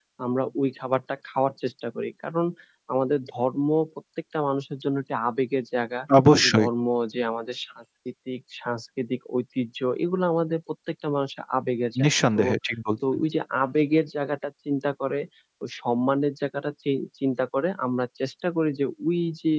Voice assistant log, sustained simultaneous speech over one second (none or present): none